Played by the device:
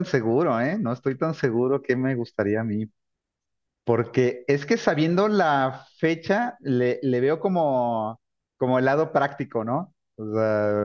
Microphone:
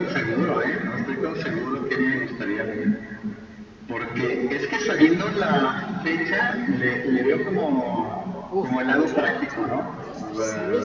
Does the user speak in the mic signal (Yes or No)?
Yes